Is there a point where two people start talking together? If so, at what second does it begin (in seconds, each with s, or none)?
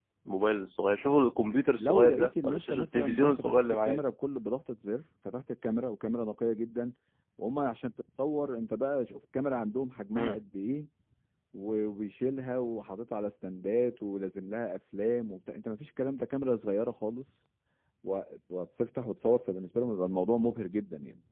1.8 s